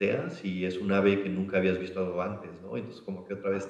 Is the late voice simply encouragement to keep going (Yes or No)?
Yes